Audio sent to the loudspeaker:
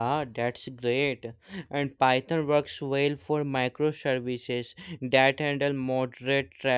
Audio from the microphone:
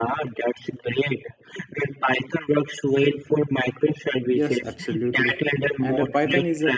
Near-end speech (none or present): present